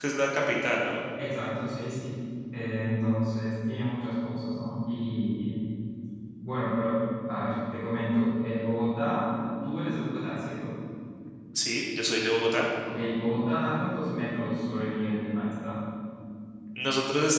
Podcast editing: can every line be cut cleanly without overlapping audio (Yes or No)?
Yes